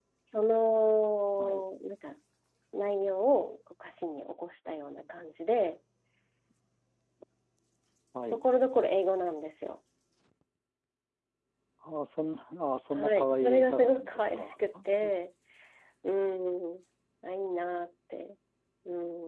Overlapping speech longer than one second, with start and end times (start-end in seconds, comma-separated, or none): 12.9-14.5